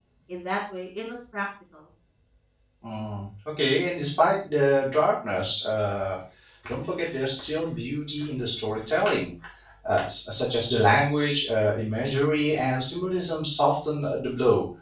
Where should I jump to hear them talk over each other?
none

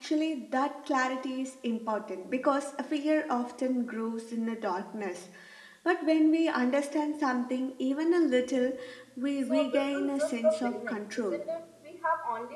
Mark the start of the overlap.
9.4 s

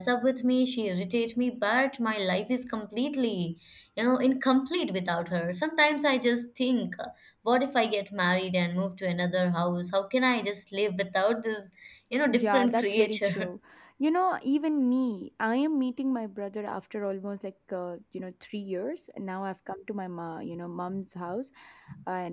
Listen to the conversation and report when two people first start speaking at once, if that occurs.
12.3 s

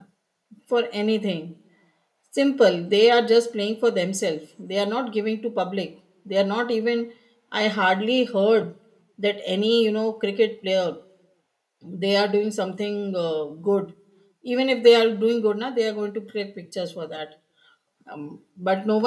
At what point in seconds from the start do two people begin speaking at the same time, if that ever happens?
none

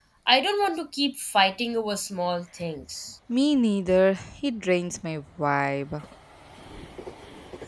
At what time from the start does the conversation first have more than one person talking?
none

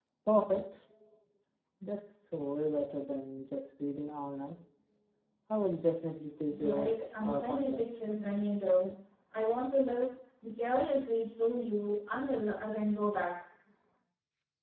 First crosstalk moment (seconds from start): 6.5 s

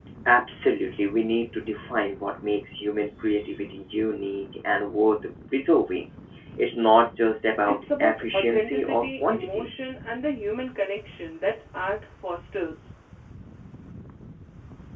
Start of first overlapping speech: 7.6 s

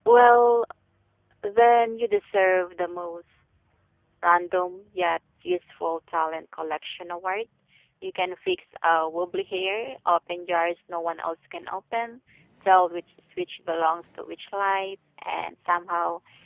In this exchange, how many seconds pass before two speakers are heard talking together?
none

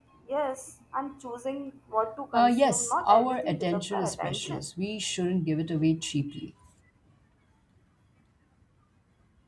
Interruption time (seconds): 2.3 s

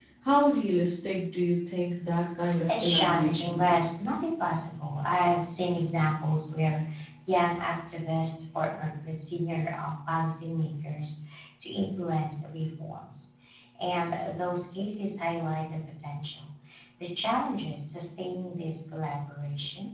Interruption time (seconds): 2.7 s

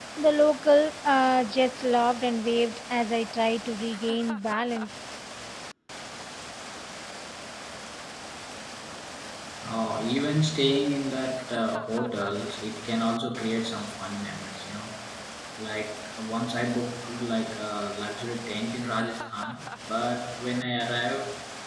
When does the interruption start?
none

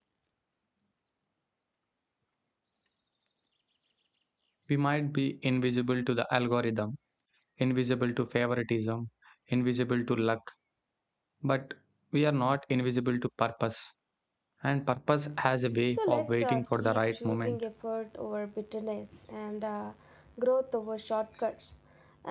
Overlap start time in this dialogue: 15.9 s

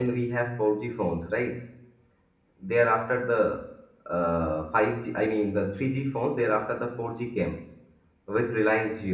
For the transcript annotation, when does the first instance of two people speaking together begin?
none

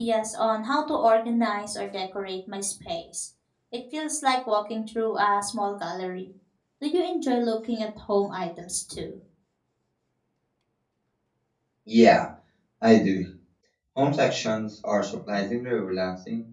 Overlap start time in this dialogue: none

